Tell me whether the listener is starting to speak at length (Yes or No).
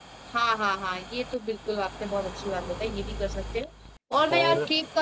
No